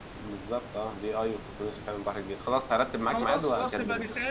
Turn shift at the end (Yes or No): Yes